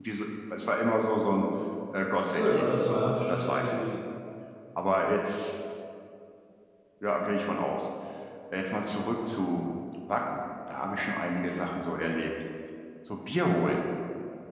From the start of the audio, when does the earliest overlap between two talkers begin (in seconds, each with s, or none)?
2.3 s